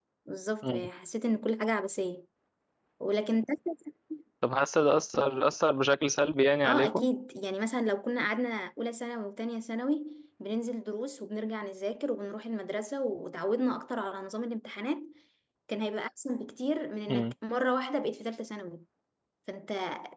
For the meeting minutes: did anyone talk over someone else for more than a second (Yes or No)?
No